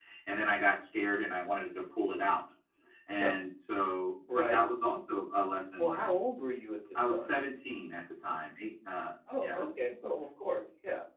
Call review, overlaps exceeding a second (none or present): none